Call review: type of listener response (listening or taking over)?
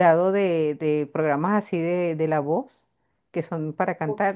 listening